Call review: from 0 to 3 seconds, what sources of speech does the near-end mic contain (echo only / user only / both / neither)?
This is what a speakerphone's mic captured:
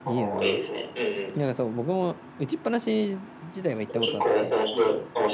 both